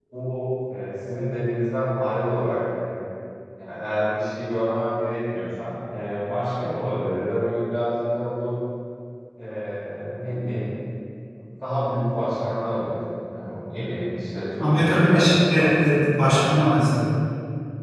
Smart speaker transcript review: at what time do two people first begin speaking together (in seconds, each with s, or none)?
14.6 s